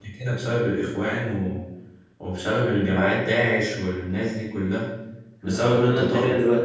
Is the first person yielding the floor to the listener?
Yes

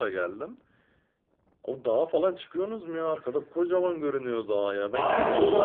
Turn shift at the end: Yes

